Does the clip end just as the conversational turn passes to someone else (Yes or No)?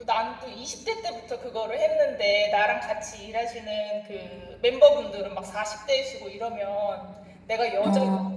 No